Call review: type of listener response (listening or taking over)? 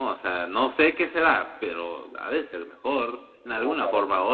taking over